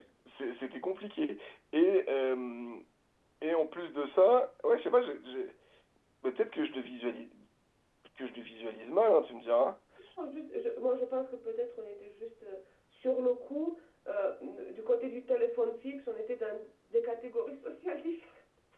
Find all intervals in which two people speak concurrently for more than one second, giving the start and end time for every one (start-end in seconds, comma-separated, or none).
none